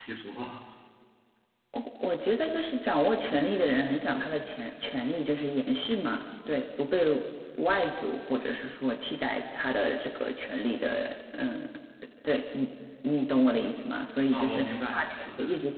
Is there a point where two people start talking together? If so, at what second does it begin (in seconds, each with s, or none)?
14.3 s